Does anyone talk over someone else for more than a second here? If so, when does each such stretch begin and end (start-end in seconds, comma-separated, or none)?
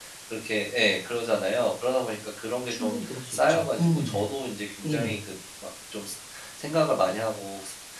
2.7-4.3